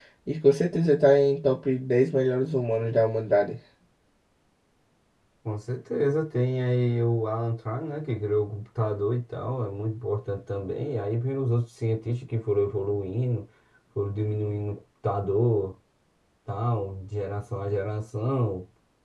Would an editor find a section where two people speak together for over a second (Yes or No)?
No